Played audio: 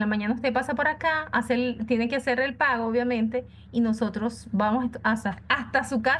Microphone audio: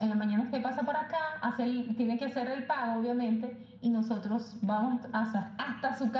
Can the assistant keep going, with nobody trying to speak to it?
Yes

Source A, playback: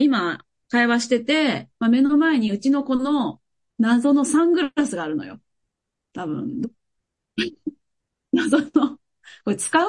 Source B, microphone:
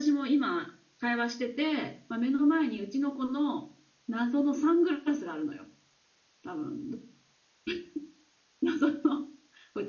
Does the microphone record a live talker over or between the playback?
No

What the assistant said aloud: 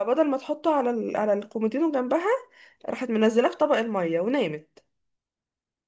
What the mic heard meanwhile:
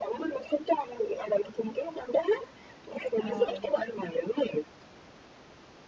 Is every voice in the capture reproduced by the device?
No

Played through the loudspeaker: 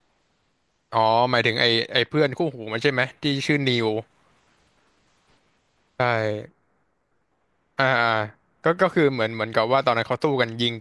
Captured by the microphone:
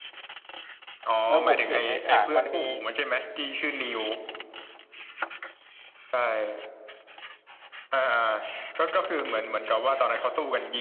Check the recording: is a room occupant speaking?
Yes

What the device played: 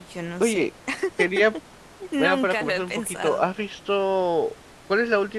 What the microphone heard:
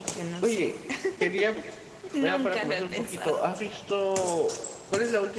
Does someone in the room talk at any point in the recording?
No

